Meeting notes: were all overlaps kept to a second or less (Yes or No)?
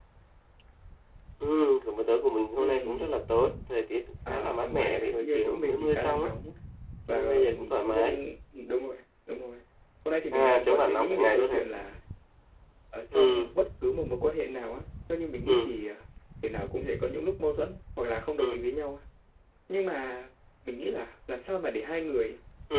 No